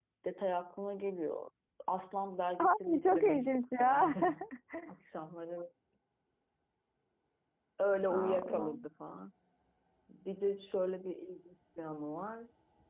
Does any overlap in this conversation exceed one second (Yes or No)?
Yes